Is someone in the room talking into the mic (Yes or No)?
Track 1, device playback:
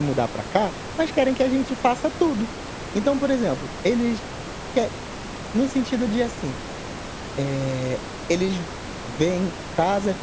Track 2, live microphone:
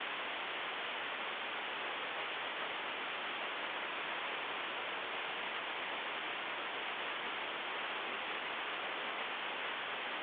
No